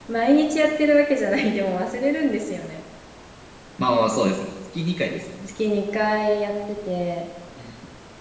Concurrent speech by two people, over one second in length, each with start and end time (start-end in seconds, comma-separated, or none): none